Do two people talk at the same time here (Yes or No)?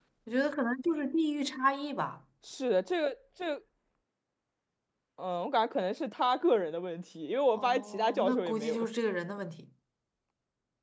Yes